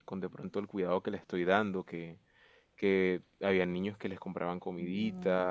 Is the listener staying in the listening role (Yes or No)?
Yes